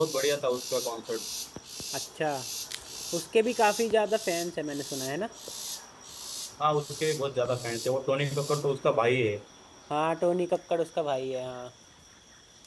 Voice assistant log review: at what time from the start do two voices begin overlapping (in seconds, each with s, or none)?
none